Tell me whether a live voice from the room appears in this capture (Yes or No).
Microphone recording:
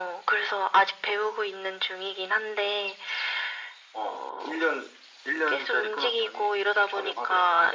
No